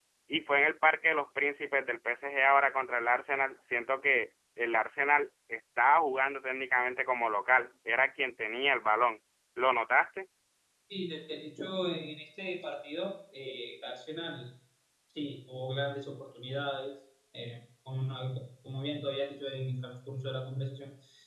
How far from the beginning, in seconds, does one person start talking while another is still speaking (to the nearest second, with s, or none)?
none